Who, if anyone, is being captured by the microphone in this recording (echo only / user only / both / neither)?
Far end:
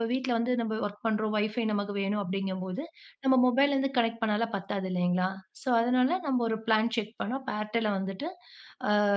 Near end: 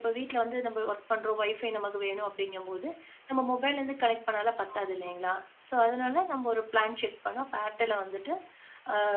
both